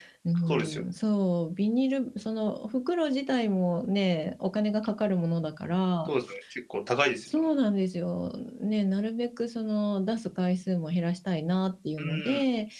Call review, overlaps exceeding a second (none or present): none